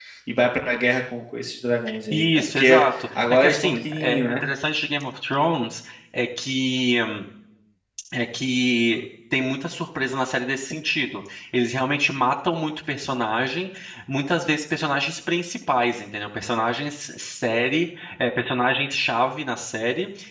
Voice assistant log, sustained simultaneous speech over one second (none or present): present